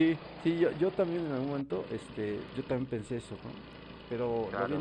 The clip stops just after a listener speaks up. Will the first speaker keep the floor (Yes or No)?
No